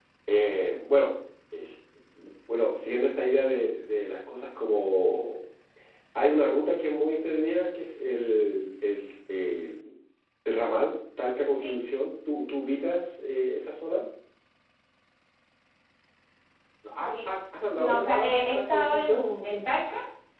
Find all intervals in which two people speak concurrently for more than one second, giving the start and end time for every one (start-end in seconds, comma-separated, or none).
17.7-19.2